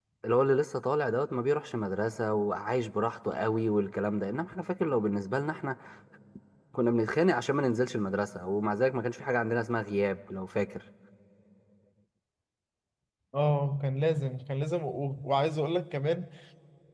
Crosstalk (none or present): none